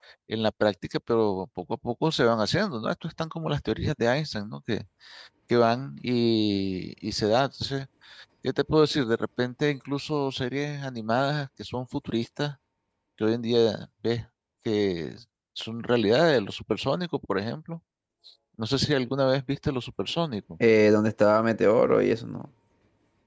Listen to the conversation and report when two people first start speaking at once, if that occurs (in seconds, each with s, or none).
none